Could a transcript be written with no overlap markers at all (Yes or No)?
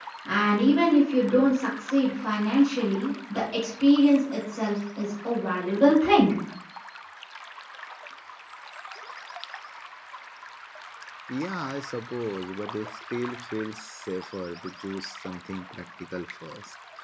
Yes